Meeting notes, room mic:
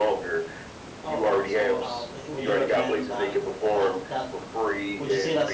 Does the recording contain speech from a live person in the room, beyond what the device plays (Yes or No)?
Yes